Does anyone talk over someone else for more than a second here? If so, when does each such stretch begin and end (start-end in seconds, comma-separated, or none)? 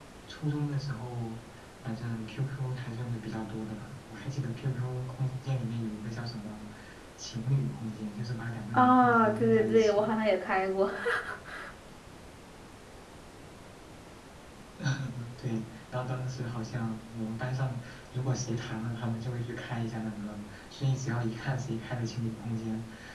8.7-10.1